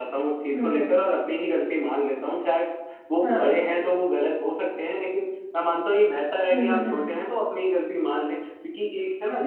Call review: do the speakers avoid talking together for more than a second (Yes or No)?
Yes